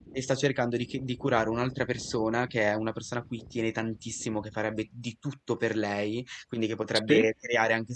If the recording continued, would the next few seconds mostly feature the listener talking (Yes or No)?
No